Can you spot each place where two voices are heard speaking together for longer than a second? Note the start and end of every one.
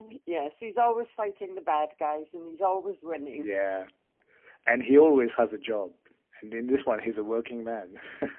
none

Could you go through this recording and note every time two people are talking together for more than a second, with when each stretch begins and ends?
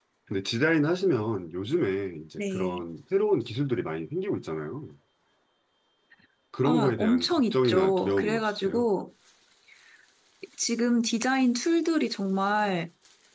6.6-8.8

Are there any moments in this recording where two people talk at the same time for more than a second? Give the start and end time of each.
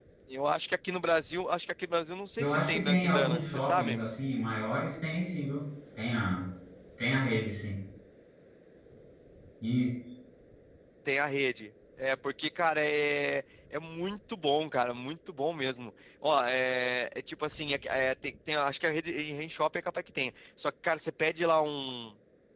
2.4-4.0

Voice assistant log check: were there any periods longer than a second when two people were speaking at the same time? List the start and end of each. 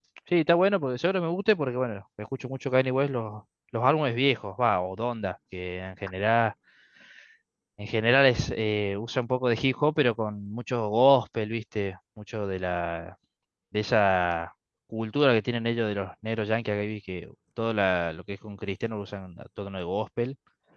none

